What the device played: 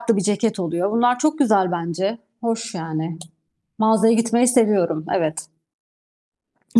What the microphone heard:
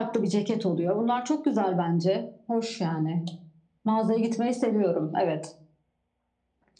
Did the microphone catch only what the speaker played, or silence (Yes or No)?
Yes